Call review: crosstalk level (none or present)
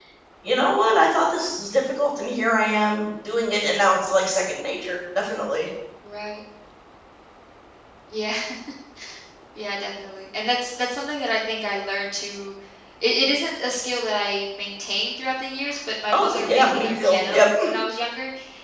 present